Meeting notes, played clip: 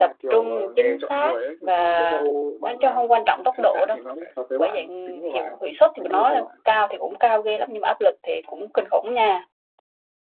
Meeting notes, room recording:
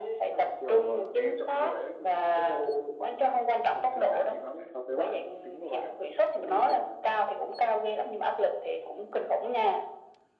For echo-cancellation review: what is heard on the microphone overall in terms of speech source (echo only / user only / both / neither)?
echo only